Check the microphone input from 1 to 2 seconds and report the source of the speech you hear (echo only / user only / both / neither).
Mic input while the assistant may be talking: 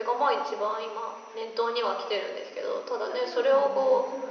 echo only